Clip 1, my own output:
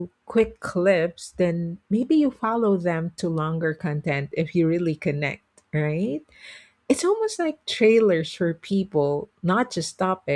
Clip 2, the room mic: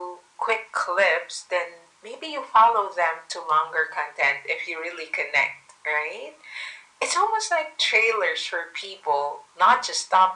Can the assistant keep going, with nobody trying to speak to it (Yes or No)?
Yes